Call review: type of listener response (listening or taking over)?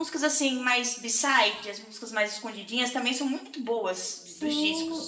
taking over